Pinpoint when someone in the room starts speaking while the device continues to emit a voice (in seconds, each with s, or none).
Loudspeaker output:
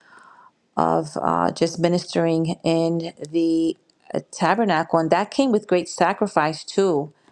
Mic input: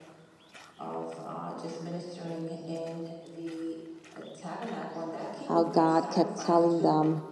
5.4 s